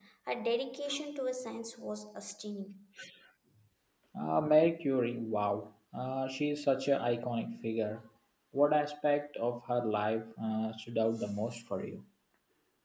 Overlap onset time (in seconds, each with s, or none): none